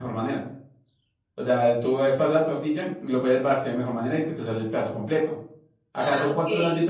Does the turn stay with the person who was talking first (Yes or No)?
Yes